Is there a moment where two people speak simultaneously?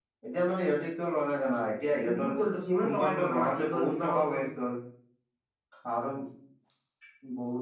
Yes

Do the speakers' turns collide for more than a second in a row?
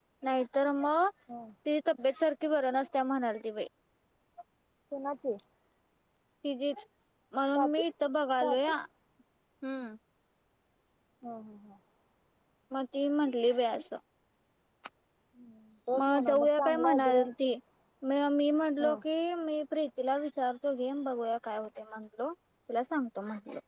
Yes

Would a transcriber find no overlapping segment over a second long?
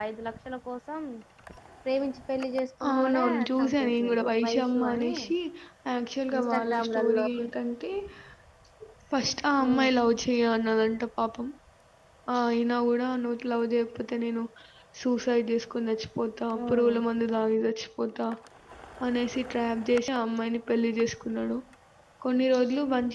No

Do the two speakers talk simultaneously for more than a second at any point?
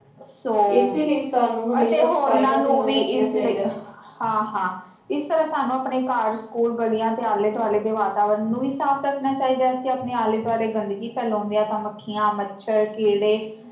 Yes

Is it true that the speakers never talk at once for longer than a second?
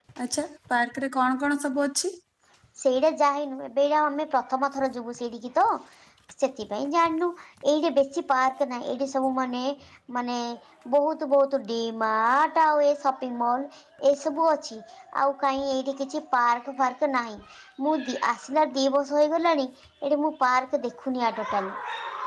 Yes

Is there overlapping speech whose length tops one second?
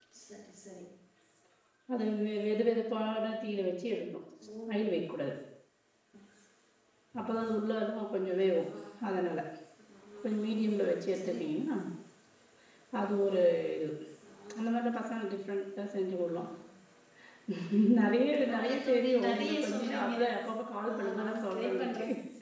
Yes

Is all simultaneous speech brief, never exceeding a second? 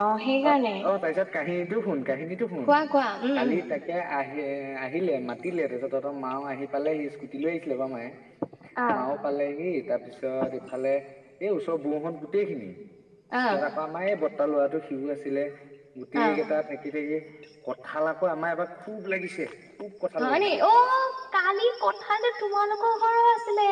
Yes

